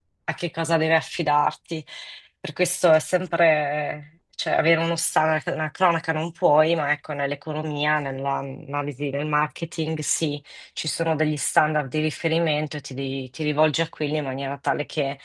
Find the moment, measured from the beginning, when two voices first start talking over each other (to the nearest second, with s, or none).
none